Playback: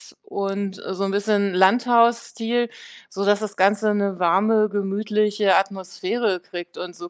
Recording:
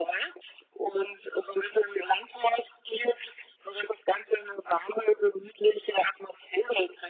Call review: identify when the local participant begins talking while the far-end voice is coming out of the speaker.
none

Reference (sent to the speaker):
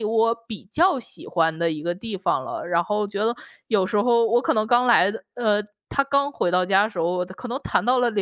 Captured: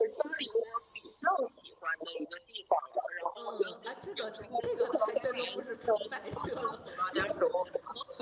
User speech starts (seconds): 3 s

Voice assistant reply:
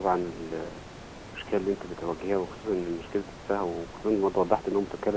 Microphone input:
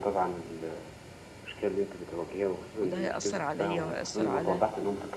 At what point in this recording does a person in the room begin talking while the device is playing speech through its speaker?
3 s

